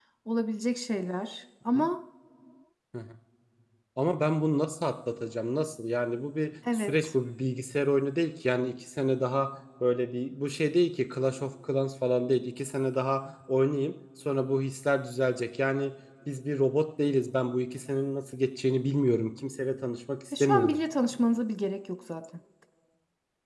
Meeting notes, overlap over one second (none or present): none